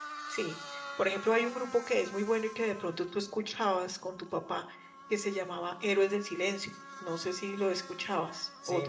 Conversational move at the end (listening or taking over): taking over